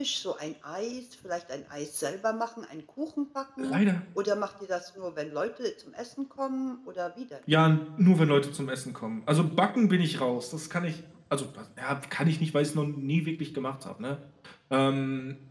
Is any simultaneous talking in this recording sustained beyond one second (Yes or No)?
No